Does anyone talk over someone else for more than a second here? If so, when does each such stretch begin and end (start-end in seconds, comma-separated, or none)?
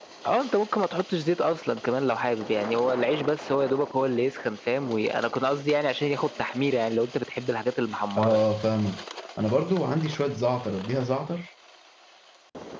none